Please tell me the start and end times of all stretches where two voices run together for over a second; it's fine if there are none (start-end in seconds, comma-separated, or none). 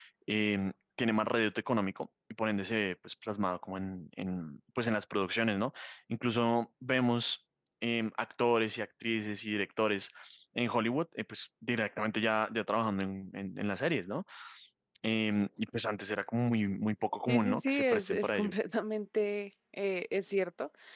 17.3-18.5